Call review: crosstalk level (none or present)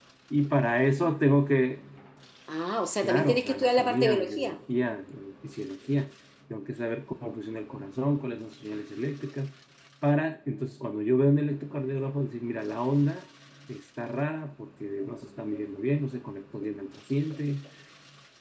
present